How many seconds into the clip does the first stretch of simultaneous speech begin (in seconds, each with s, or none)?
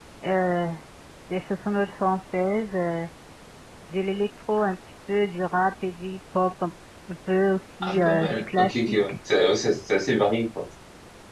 7.8 s